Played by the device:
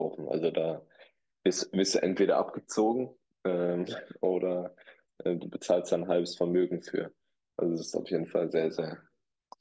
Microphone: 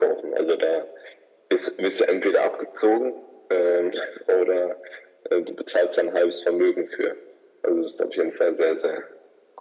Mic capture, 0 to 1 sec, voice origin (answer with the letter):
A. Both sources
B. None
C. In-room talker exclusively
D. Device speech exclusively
D